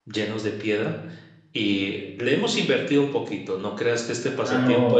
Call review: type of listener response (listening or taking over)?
taking over